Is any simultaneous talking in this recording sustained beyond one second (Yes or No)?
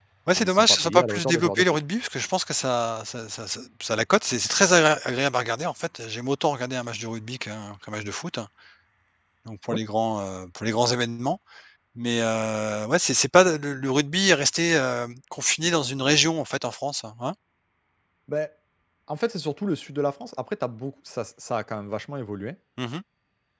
Yes